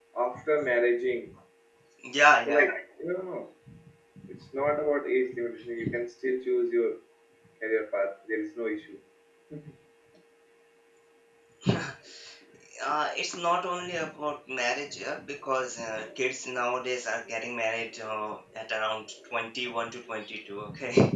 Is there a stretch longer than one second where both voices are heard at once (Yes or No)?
No